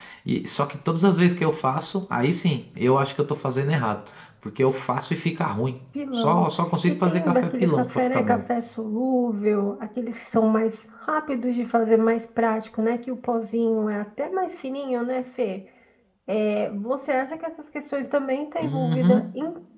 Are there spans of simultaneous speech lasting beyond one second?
Yes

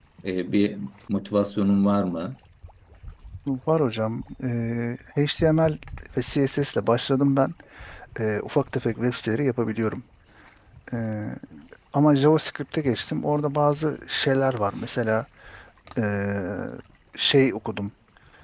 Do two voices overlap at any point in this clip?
No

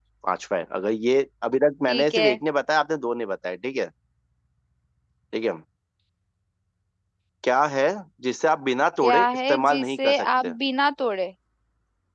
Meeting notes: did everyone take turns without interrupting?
No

